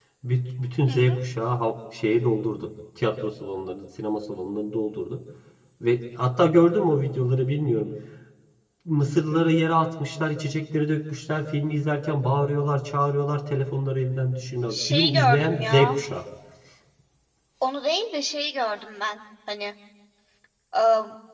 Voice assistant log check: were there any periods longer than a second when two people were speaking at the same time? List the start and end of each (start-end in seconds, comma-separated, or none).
14.7-16.0